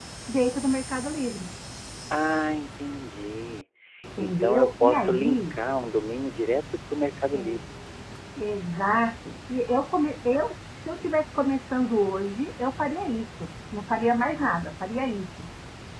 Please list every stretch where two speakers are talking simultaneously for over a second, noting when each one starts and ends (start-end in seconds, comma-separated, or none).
4.2-5.6